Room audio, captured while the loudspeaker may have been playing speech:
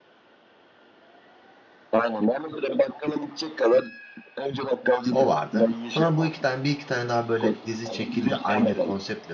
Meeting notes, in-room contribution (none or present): present